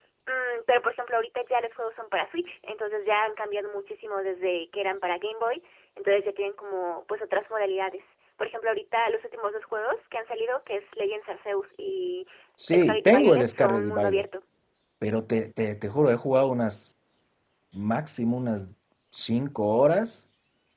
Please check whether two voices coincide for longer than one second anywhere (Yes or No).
Yes